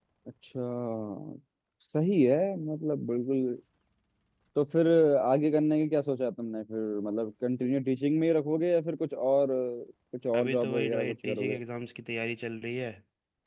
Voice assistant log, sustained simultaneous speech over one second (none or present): present